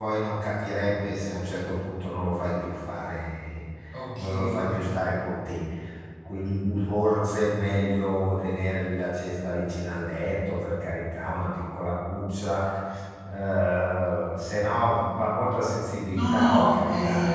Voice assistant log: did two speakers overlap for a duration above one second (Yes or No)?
Yes